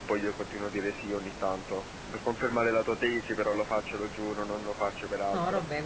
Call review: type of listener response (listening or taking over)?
taking over